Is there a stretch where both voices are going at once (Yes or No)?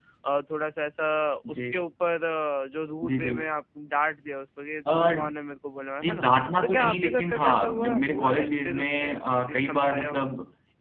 Yes